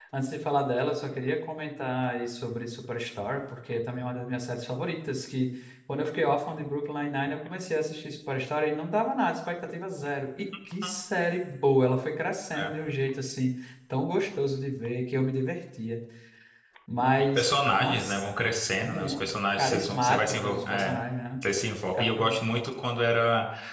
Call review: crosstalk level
present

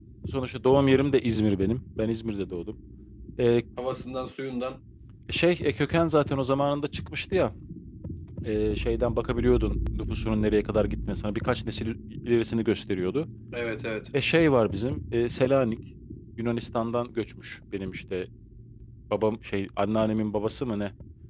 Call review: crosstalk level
none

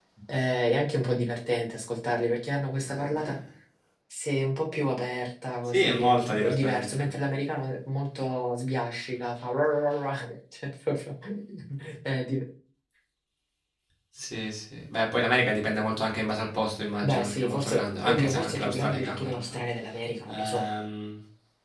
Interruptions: present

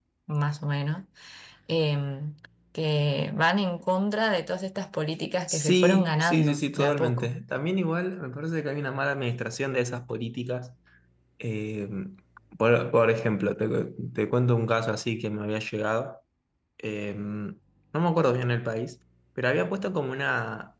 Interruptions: present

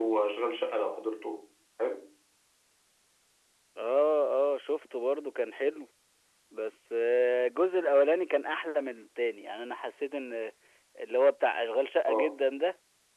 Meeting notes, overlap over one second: none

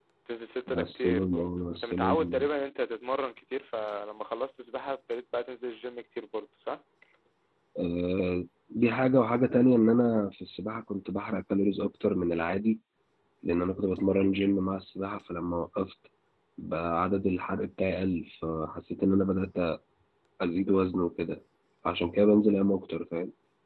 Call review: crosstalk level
present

